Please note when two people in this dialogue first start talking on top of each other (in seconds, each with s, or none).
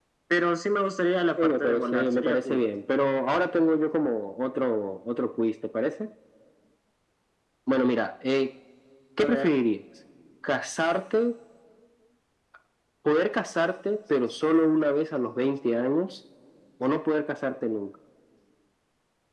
1.4 s